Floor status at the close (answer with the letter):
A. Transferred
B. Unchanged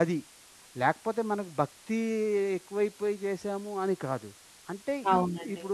B